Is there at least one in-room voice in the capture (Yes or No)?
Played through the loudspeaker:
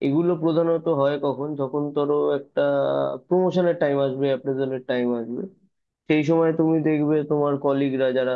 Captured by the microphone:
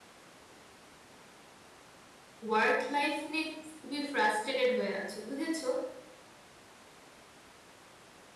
Yes